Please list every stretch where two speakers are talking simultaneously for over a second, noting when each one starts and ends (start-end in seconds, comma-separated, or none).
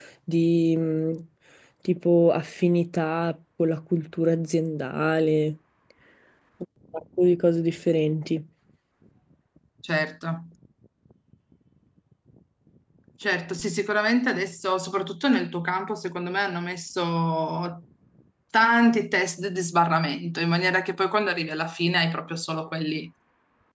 none